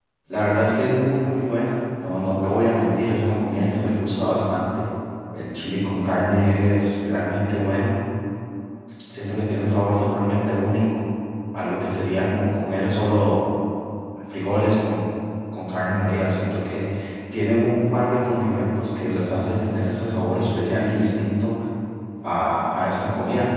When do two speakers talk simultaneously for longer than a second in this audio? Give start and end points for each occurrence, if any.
none

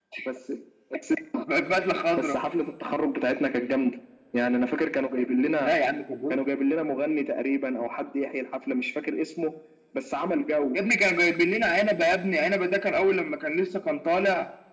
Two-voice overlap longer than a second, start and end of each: none

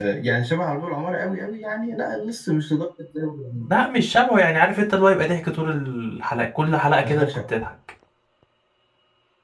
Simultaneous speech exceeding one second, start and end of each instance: none

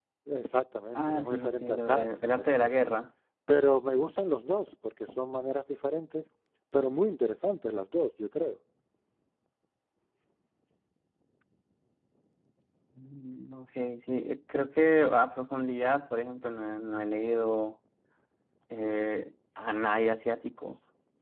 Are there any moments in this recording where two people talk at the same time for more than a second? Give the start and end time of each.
0.9-2.9

